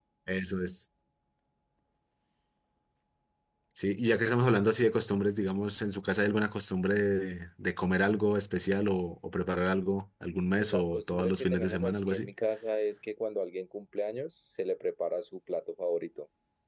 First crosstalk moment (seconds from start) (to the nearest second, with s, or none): 11 s